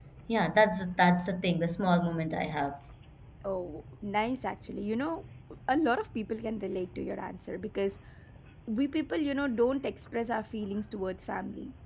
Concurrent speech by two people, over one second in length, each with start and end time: none

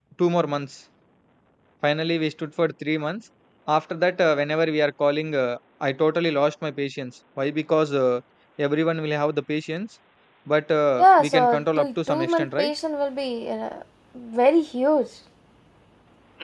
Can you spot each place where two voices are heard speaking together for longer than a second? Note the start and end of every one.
11.0-12.7

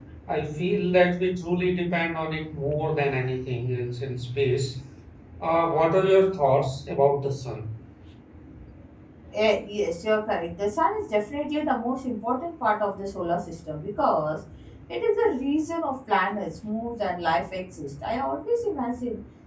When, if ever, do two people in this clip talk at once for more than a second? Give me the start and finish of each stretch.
none

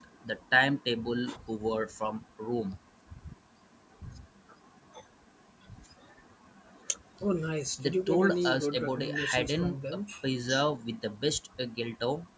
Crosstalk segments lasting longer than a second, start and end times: 7.8-10.0

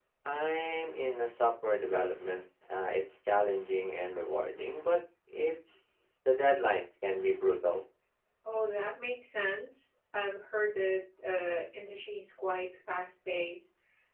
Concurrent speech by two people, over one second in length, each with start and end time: none

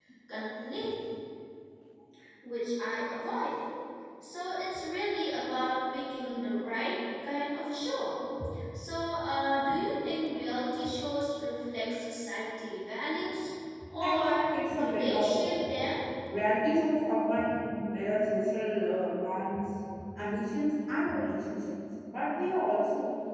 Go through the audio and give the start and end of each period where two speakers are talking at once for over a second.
14.0-15.6

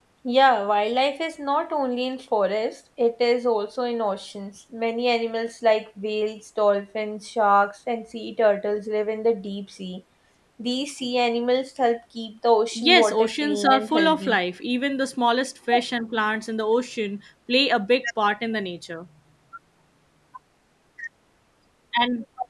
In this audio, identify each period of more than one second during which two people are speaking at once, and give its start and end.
12.8-14.4

